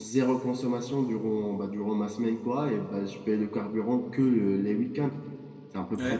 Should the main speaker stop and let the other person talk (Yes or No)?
Yes